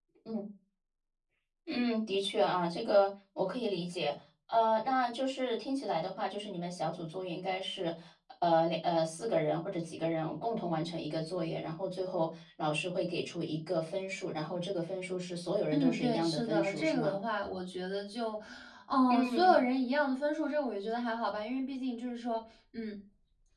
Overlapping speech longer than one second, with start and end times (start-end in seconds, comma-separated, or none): 15.7-17.2